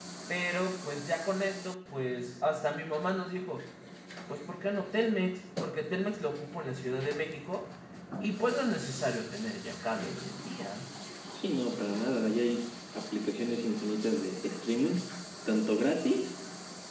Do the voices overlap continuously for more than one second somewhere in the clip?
No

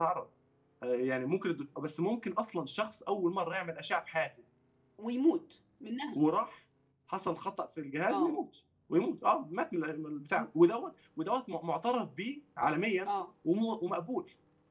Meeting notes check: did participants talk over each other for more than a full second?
No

